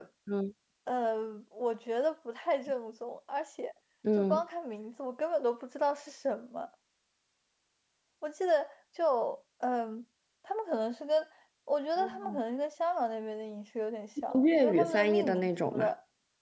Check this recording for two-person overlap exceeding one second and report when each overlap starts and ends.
14.3-15.9

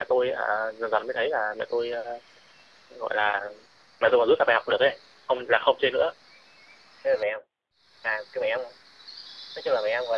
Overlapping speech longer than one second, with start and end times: none

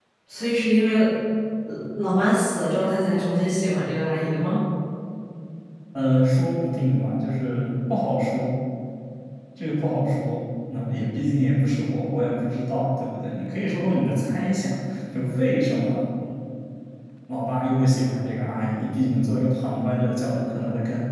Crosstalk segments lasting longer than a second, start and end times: none

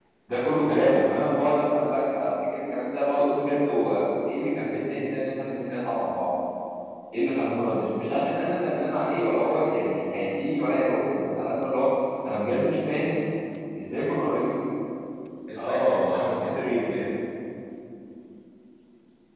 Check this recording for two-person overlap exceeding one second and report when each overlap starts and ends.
15.6-17.1

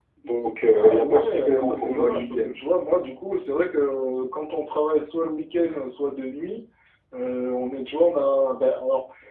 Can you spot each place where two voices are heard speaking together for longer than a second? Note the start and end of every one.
0.7-2.6

